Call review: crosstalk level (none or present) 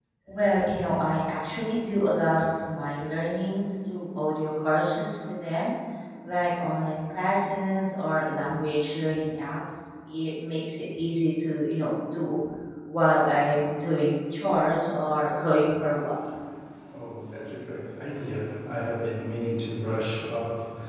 none